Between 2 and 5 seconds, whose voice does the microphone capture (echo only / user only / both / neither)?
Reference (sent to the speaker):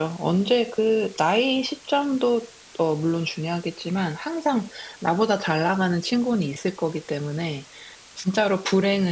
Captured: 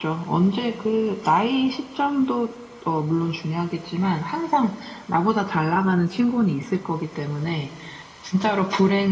echo only